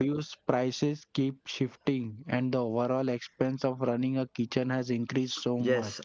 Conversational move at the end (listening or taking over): taking over